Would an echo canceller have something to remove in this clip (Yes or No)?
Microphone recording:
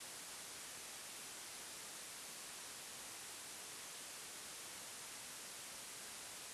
No